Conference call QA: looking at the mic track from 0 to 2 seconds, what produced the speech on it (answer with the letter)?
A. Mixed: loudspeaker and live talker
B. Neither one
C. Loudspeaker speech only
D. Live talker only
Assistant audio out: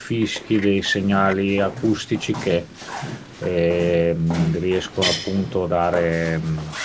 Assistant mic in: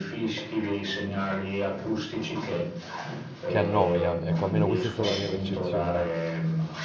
C